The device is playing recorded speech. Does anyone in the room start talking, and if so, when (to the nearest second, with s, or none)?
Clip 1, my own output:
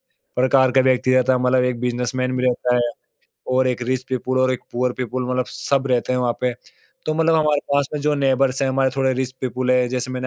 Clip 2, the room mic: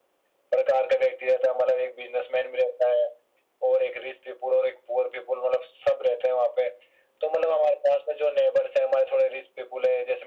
none